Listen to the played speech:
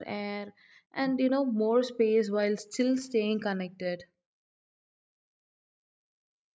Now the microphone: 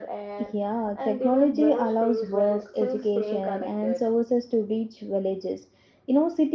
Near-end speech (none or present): present